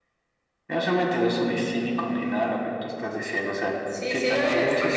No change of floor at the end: No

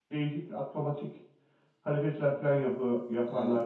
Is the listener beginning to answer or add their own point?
Yes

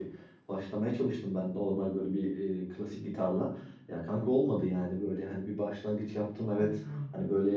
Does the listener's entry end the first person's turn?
No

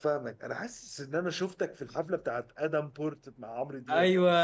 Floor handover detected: Yes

